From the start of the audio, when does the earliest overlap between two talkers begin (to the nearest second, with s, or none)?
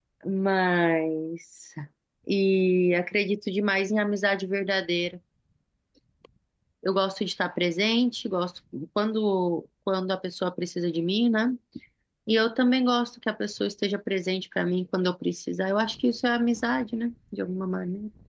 none